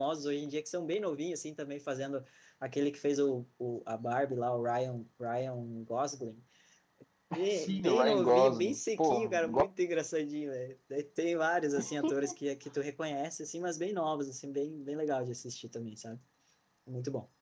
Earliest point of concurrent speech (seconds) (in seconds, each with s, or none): 7.5 s